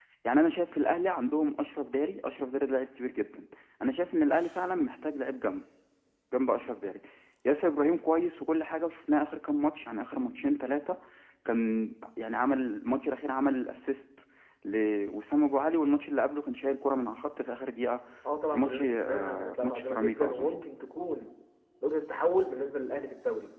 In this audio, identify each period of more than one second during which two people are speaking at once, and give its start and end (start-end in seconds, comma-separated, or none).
18.5-20.5